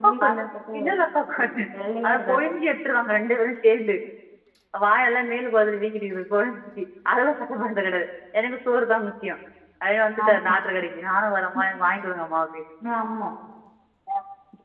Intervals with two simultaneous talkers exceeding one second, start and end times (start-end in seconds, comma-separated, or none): none